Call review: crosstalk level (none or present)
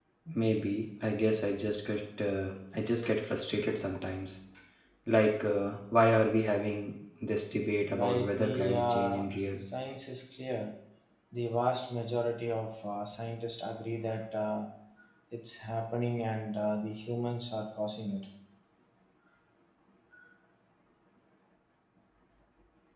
present